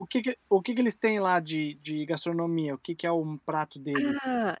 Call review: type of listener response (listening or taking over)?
taking over